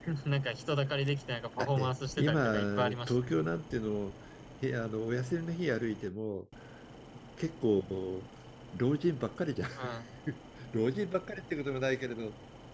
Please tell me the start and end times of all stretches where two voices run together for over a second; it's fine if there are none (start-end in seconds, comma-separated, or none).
1.6-3.2